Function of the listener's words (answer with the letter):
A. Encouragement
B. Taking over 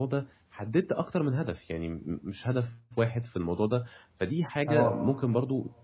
A